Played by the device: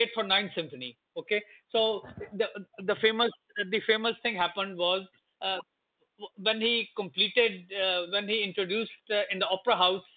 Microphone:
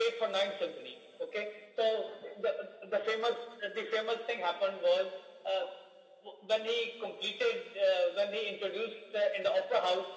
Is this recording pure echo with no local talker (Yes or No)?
Yes